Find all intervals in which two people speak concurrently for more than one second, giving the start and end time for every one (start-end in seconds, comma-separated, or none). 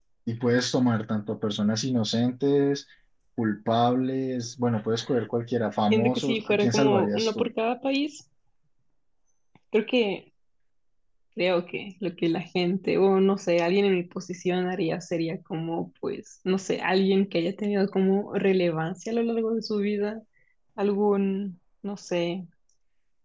5.9-7.5